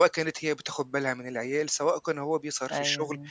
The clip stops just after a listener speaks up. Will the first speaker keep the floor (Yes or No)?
Yes